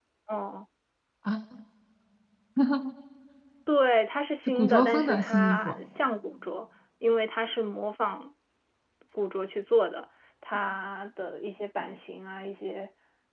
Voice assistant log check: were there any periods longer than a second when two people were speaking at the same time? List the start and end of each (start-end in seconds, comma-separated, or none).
4.5-5.7